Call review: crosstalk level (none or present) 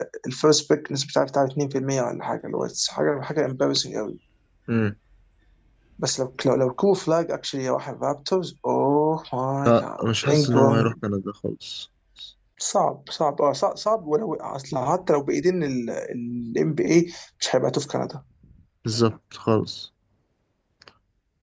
present